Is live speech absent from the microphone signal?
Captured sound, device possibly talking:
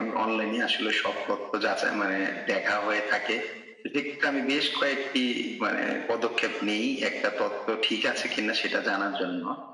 Yes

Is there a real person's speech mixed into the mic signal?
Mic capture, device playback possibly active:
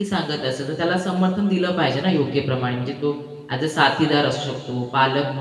Yes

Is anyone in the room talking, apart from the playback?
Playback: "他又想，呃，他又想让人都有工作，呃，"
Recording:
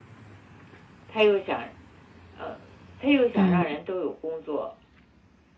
Yes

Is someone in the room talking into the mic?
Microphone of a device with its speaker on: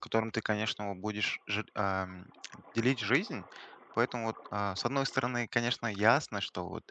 Yes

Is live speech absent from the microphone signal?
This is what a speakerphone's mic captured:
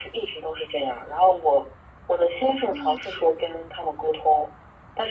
No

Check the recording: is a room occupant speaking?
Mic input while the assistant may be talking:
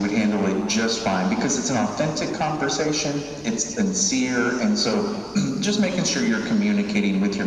No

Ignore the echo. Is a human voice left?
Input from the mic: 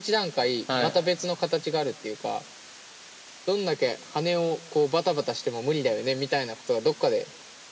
Yes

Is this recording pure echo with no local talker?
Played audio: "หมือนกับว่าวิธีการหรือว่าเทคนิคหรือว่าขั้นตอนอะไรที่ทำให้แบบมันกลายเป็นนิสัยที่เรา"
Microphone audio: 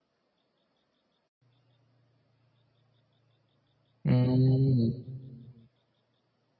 No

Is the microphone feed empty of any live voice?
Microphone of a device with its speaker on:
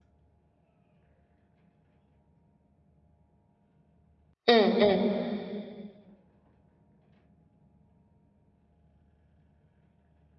No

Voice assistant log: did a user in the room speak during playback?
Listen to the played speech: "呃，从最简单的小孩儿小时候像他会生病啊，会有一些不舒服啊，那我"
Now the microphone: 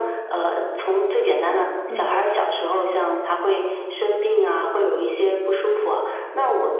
Yes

